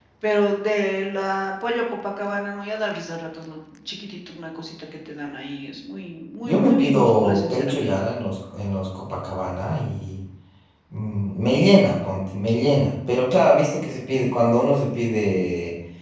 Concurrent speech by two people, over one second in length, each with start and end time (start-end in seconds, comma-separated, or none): 6.4-7.9